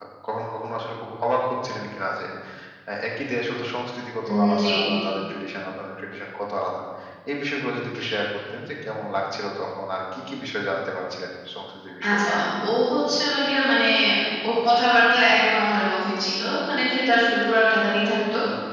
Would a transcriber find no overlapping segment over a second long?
Yes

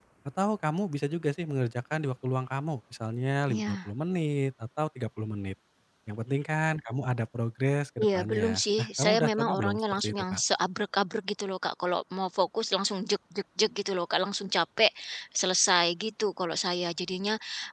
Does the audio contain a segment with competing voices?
Yes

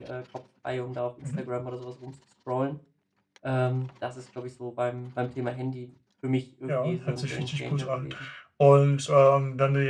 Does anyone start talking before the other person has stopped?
Yes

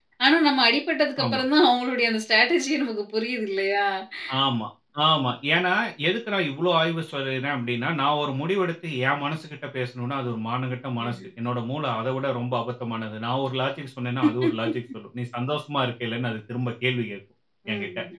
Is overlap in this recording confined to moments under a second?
Yes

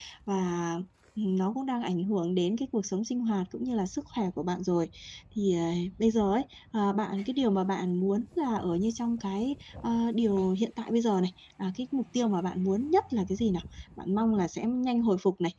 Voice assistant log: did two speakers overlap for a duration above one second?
No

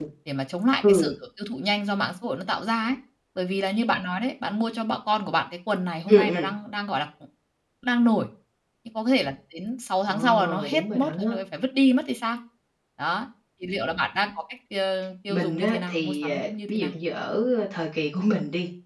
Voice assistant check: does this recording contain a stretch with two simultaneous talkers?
Yes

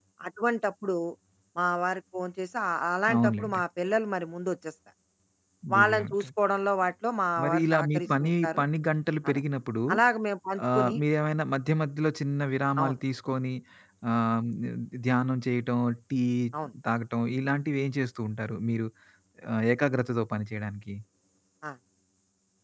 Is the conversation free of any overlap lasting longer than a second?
No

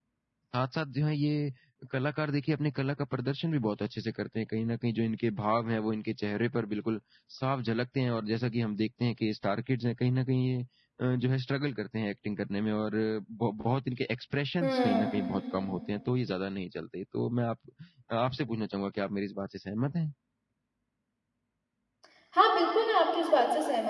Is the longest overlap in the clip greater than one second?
No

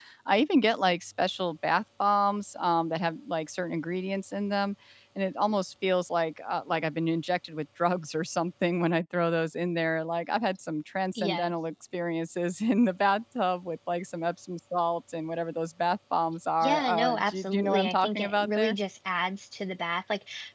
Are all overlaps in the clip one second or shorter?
No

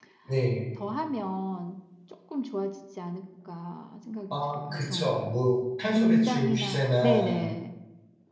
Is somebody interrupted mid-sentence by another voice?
Yes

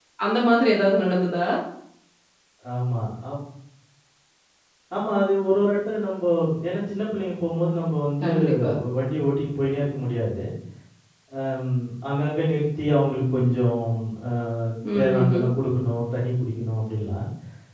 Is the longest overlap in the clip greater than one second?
No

